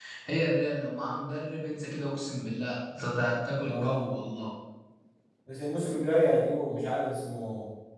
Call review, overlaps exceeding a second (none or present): none